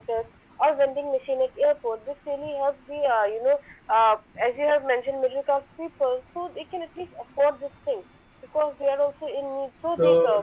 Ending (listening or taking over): taking over